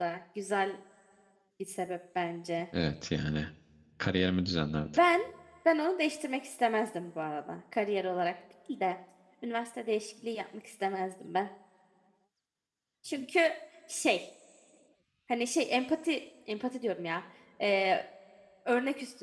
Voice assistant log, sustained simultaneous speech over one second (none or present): none